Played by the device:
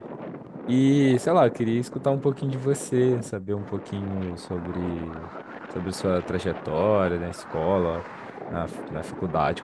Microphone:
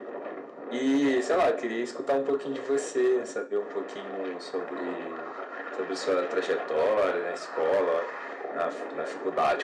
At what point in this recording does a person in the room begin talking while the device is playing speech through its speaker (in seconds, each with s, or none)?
none